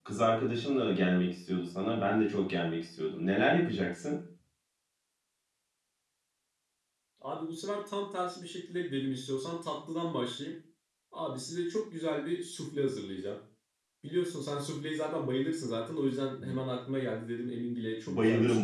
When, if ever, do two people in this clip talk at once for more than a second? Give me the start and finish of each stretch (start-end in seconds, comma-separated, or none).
none